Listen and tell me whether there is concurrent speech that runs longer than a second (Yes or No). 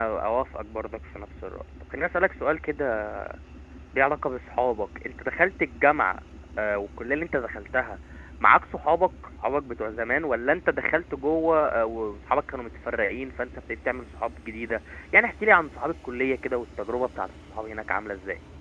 No